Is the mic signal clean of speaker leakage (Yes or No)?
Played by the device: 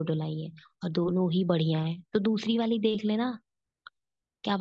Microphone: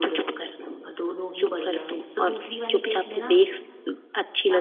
No